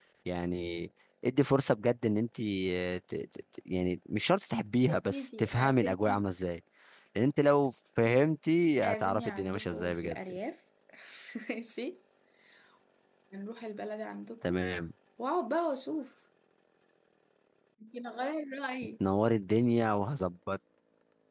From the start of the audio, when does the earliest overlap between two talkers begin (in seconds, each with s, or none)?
4.9 s